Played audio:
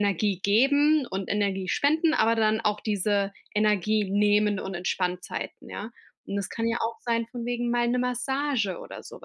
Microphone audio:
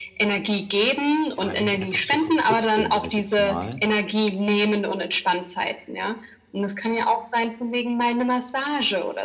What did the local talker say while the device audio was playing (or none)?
ja, irgendwie einfach so kaputt bin, sage ich jetzt mal,